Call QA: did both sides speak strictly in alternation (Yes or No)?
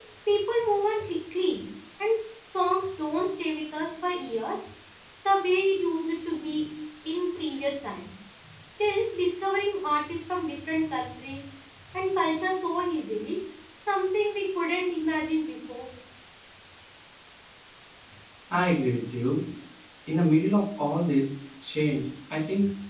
Yes